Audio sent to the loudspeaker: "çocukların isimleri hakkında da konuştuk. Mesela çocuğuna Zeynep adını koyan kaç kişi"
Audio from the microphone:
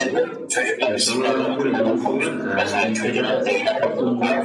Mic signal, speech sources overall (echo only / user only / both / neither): both